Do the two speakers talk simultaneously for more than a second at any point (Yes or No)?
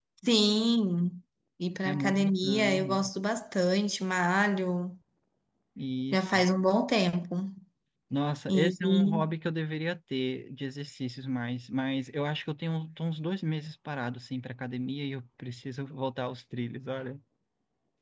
Yes